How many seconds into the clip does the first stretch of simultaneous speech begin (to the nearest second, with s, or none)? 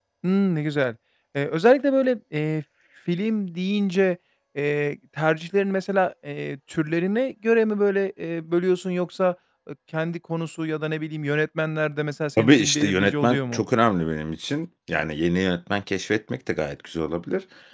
12 s